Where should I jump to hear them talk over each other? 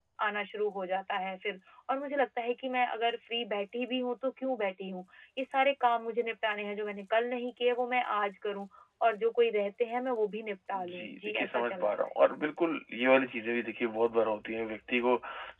10.7 s

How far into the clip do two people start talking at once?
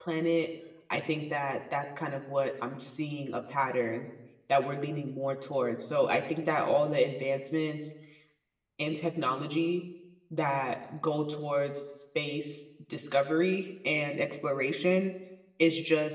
none

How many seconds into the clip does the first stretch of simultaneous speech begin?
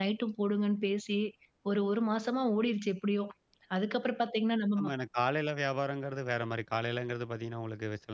none

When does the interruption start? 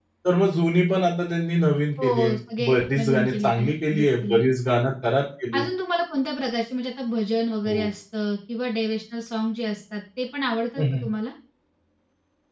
2.0 s

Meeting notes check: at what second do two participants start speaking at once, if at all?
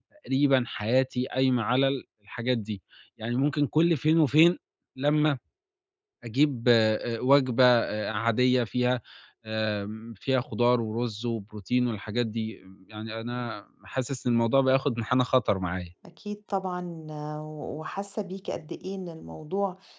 none

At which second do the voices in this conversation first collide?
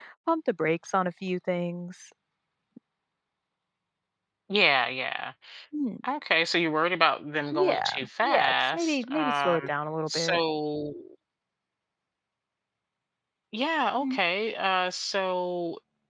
7.5 s

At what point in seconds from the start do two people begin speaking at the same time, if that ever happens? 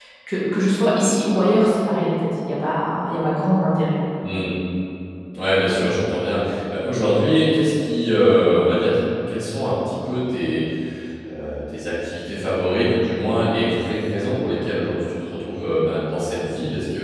none

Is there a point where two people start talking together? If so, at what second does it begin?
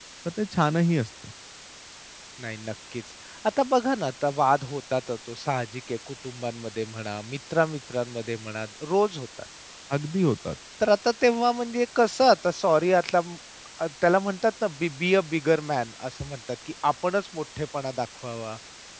none

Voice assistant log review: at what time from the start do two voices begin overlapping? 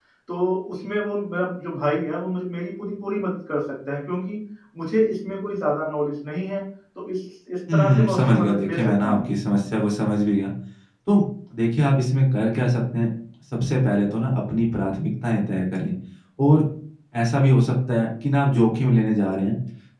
7.7 s

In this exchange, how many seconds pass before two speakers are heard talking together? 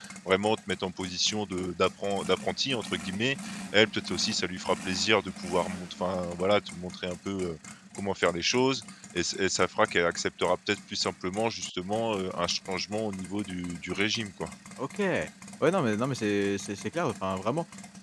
none

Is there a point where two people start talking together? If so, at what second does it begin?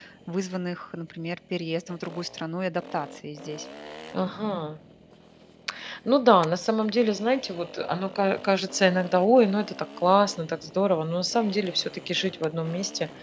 none

